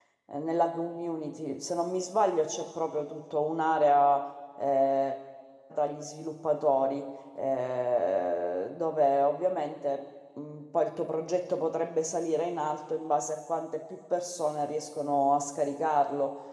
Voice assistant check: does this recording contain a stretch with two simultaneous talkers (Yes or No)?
No